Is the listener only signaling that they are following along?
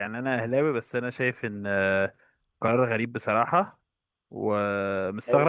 Yes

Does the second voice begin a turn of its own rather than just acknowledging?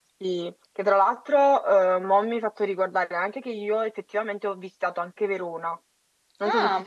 Yes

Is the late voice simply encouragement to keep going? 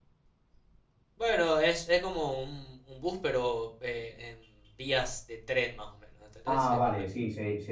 No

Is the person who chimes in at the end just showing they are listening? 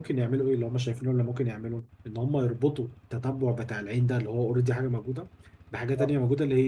Yes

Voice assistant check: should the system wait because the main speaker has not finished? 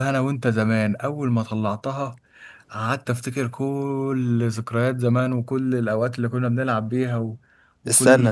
Yes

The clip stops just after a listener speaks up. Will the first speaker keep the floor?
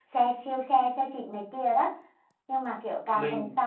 Yes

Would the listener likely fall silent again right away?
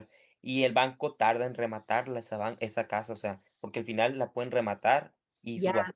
Yes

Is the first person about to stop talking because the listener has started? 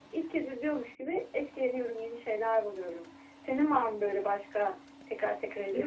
Yes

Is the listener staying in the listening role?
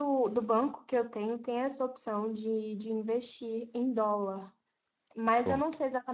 Yes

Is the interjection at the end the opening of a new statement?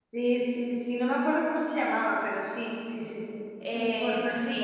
Yes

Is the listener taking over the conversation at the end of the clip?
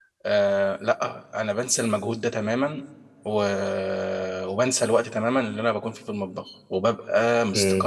No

